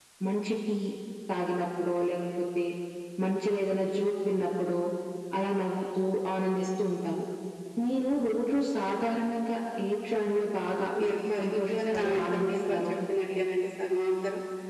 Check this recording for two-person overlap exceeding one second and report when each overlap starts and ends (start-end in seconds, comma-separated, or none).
11.4-12.8